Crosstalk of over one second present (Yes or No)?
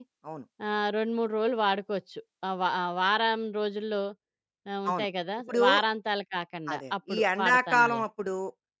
Yes